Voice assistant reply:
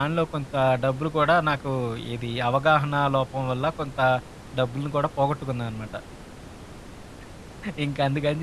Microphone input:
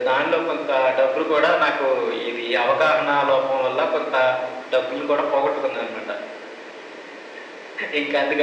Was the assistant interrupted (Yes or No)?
No